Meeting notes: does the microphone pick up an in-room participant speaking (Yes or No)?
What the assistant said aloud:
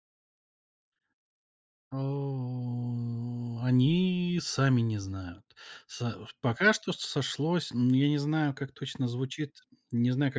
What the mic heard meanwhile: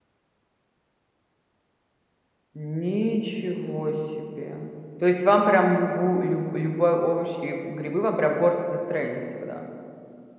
Yes